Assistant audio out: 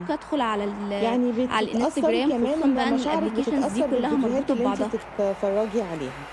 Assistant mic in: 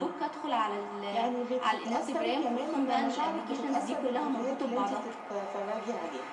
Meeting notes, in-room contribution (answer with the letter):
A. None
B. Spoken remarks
A